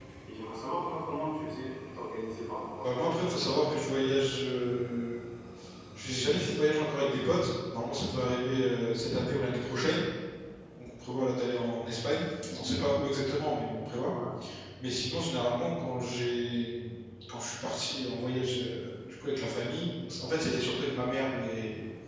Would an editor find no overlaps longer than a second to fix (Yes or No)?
Yes